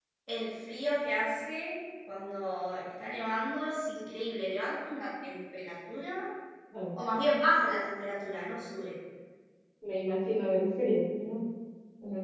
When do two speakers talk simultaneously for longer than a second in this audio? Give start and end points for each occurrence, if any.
none

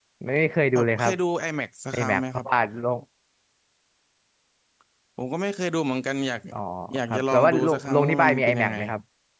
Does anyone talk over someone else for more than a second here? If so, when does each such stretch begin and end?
7.1-8.8

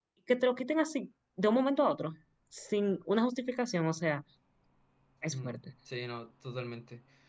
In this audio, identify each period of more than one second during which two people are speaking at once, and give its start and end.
none

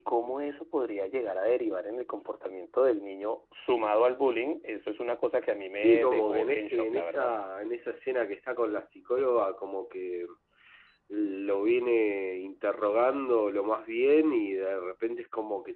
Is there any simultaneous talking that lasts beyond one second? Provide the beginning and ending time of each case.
5.7-7.3

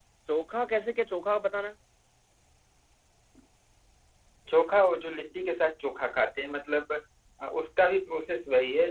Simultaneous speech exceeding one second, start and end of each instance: none

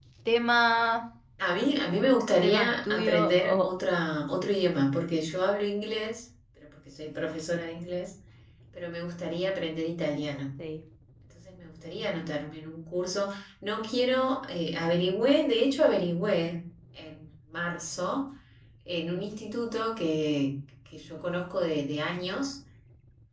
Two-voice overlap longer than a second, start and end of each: 2.4-3.7

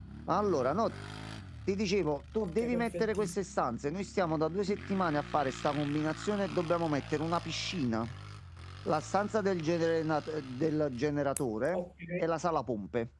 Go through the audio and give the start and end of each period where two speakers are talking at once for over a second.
2.4-3.7

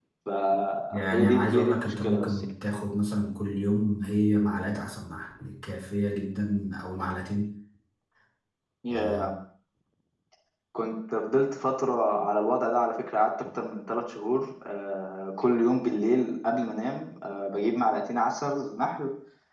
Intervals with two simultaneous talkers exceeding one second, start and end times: 0.9-2.4

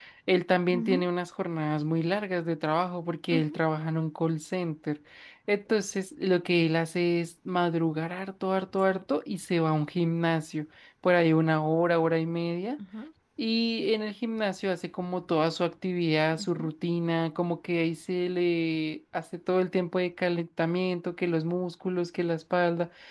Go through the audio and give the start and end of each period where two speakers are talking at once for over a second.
none

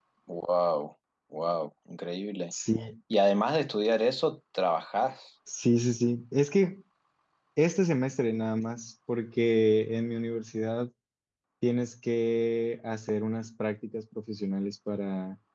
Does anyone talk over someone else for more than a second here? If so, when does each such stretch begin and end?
none

